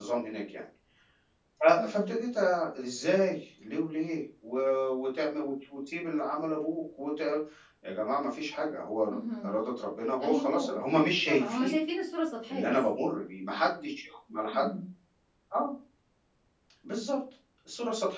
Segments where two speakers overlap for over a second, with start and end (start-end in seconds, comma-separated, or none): 10.2-11.8